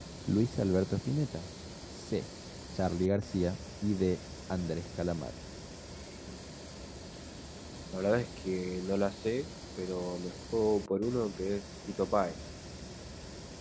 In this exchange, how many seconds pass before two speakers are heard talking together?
none

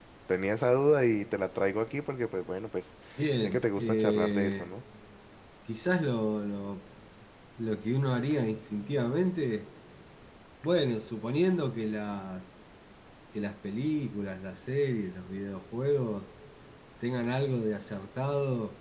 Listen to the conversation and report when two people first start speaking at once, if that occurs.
3.4 s

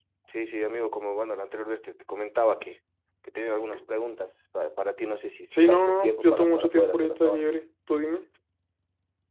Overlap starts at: 5.5 s

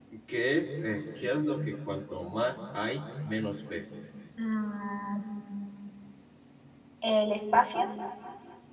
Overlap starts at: none

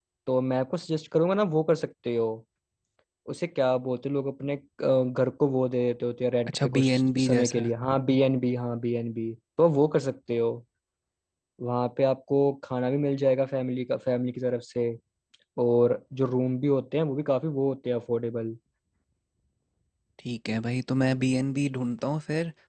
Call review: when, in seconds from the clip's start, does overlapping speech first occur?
6.5 s

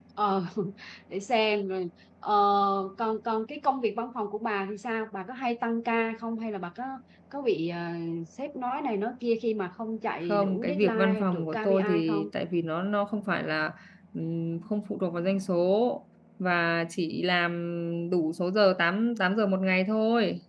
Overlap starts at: 10.3 s

